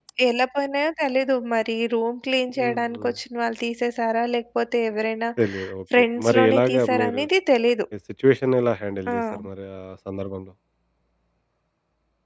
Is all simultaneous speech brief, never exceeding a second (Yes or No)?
No